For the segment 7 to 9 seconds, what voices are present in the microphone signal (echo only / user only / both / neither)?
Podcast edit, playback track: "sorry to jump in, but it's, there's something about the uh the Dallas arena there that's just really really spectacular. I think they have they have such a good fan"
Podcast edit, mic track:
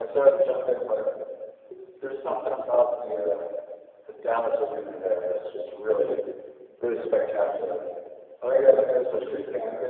echo only